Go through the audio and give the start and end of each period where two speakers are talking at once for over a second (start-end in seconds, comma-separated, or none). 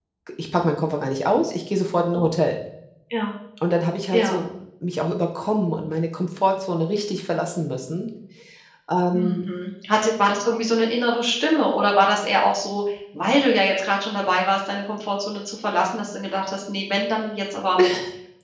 none